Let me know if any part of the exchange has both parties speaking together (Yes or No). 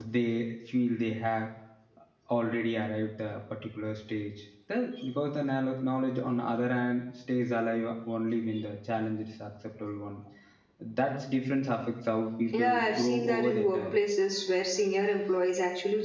Yes